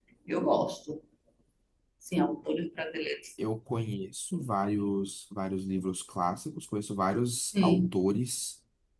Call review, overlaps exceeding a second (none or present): none